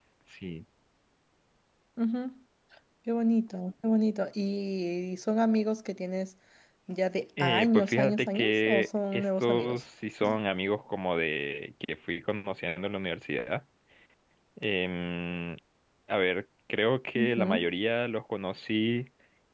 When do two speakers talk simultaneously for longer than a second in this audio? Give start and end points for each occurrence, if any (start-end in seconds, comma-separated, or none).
7.4-9.8